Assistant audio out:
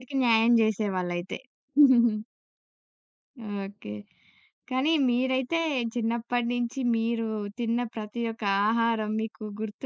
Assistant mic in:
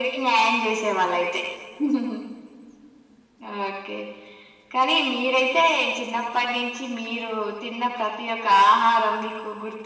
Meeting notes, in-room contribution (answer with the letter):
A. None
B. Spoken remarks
A